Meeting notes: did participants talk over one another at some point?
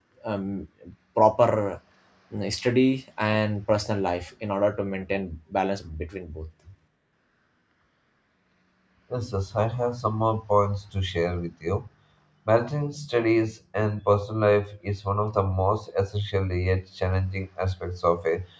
No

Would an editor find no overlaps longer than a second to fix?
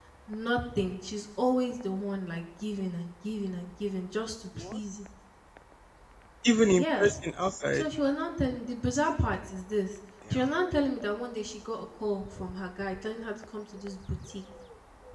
Yes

